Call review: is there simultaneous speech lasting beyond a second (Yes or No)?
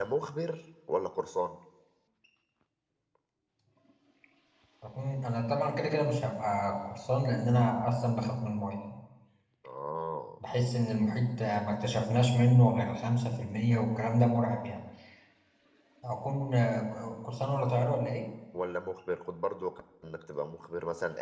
No